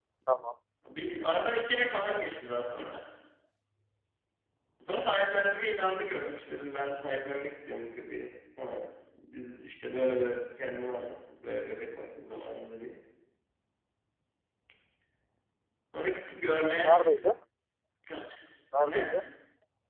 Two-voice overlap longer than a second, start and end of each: none

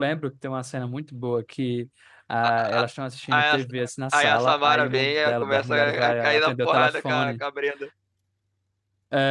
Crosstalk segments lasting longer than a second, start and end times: 4.2-7.4

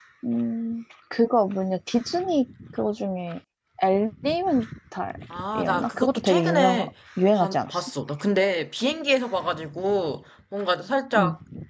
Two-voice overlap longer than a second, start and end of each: 5.6-6.9

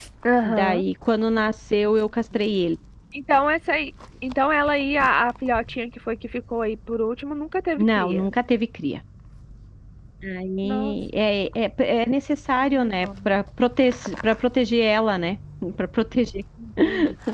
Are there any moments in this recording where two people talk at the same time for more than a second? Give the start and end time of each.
none

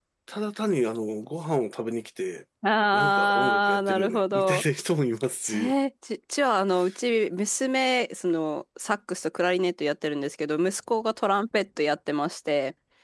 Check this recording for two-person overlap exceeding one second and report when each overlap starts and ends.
2.9-4.6

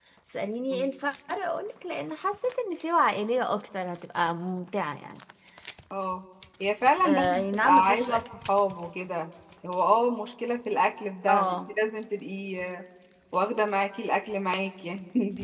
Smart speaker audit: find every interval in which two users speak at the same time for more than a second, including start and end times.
7.0-8.3

